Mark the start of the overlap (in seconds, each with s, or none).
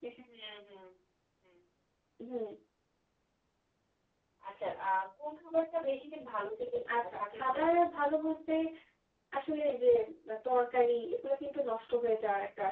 6.9 s